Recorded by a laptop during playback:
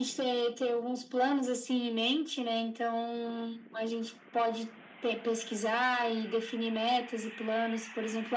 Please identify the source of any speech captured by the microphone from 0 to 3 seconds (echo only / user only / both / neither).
echo only